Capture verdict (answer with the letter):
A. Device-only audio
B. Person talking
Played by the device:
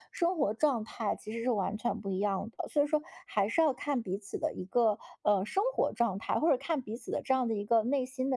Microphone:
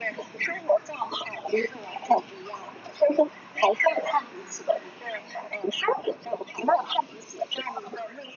A